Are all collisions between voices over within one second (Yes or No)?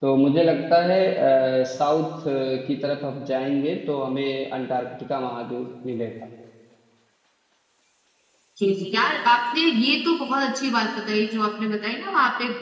Yes